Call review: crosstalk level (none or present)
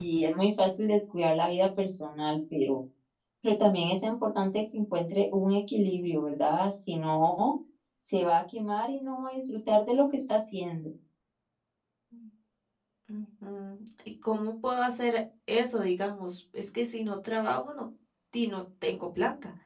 none